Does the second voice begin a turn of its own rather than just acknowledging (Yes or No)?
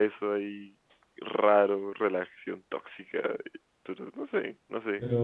Yes